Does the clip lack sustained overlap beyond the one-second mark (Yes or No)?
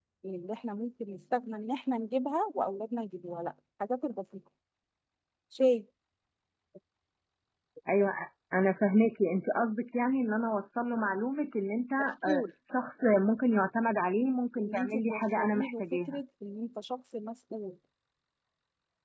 No